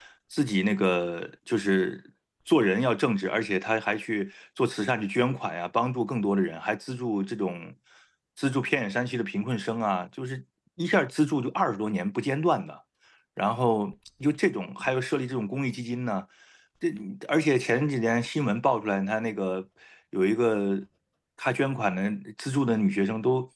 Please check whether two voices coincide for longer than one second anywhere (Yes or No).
No